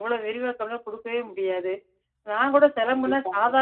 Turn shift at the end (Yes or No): No